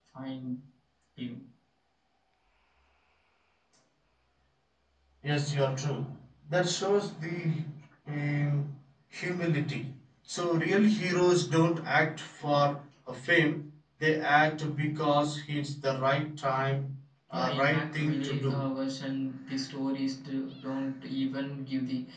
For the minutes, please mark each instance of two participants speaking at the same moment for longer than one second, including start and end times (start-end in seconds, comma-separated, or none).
17.3-18.6